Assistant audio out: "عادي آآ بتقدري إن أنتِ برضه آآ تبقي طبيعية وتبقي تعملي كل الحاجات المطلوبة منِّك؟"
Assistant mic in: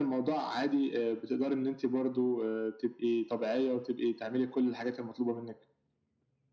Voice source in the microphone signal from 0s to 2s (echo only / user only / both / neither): echo only